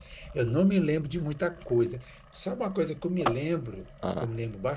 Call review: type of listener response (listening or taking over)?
listening